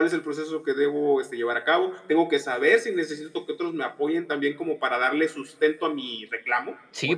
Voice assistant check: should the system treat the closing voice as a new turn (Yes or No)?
Yes